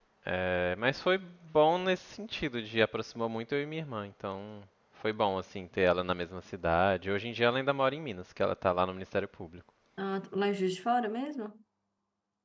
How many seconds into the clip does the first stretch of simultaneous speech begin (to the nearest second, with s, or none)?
none